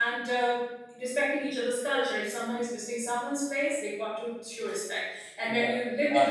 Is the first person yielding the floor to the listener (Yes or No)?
Yes